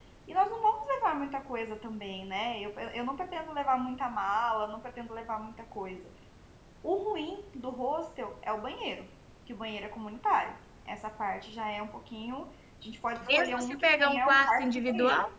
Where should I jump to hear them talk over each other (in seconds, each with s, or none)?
13.3 s